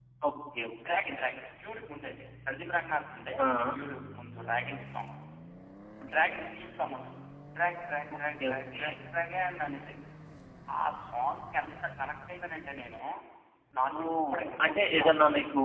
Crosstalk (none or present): present